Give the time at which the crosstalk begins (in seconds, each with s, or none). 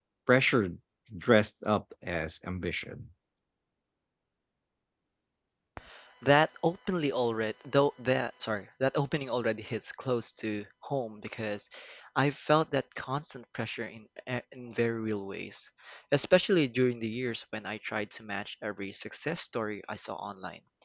none